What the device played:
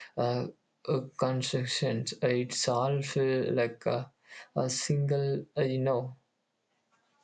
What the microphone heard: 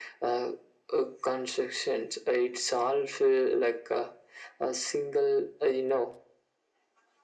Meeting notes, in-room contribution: none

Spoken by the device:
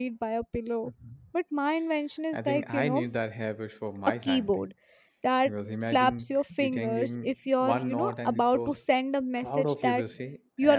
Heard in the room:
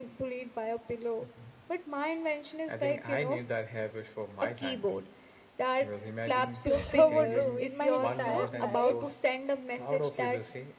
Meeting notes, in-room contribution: present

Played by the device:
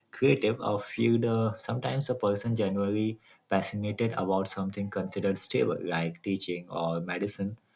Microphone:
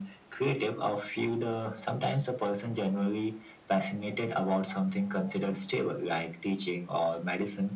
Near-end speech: none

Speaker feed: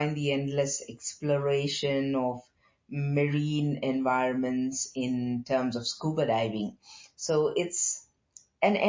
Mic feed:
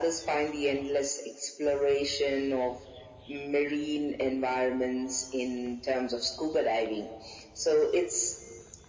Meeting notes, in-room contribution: none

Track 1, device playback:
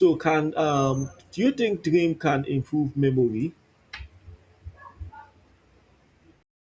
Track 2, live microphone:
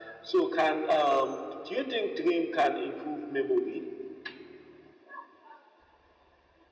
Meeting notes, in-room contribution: none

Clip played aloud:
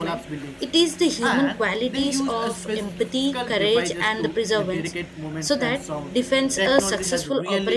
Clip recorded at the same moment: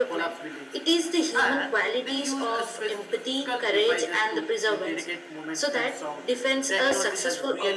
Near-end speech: none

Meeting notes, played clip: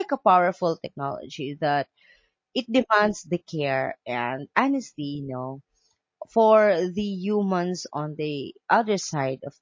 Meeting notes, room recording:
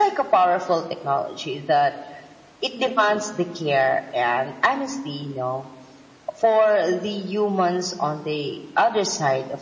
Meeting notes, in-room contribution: none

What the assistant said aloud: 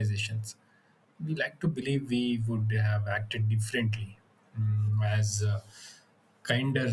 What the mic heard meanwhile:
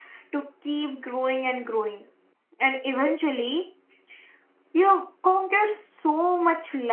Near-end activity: present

